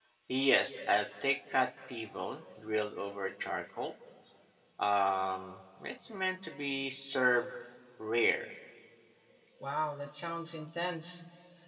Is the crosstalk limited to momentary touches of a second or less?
Yes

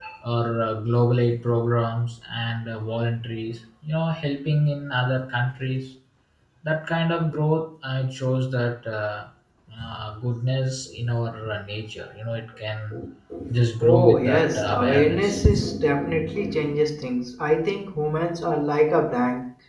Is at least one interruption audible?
Yes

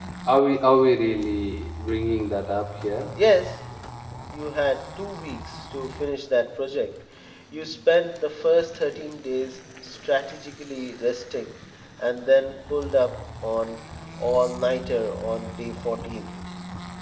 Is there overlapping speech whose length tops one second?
No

